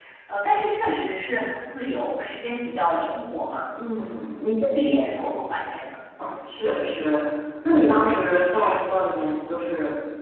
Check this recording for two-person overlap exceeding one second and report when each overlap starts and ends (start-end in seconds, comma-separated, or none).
none